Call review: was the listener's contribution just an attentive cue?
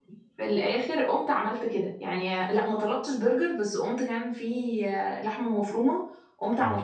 Yes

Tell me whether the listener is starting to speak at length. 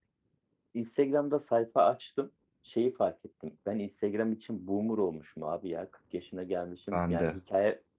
No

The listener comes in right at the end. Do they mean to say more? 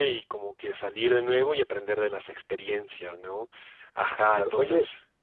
Yes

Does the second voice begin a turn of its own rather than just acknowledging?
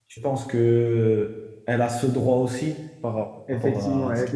Yes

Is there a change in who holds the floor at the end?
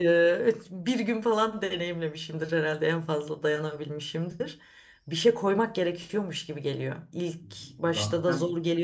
No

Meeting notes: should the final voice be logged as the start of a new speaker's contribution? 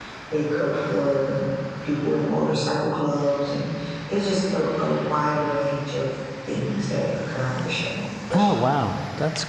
Yes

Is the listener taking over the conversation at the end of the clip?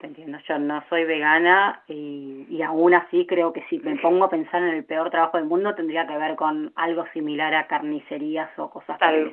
No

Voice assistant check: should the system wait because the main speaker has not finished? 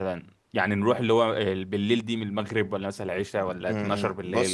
No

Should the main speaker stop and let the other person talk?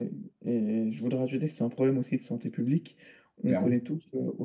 No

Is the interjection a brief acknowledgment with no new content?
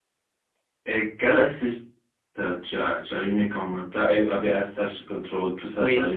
No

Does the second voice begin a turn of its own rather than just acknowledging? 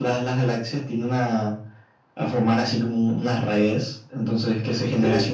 No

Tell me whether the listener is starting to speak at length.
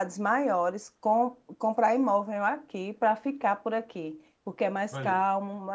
No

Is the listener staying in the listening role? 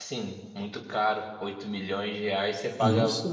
Yes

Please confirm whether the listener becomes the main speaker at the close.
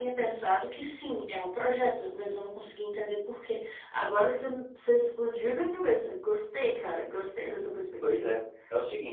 Yes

